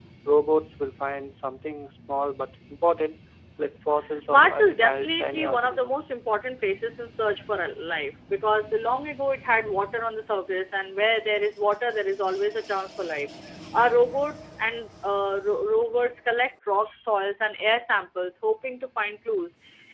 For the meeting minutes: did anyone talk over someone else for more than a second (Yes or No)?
Yes